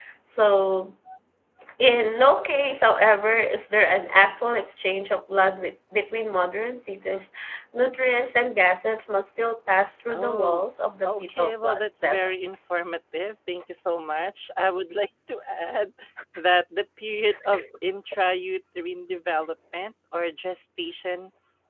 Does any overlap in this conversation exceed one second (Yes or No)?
Yes